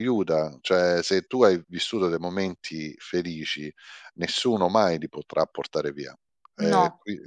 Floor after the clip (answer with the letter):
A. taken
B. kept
B